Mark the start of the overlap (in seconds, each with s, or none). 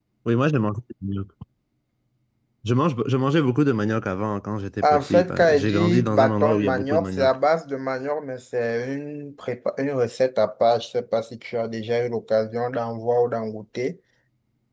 4.8 s